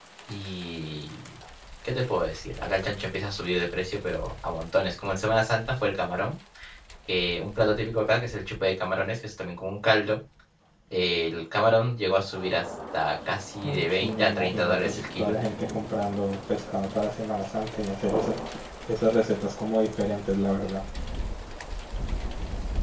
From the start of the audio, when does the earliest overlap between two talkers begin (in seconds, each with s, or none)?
13.6 s